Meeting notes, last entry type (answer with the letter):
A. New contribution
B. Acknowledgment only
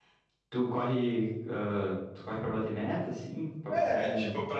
A